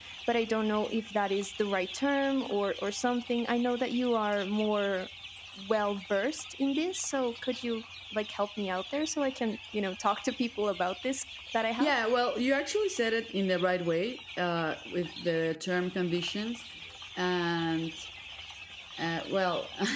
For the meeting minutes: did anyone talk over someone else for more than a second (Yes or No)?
No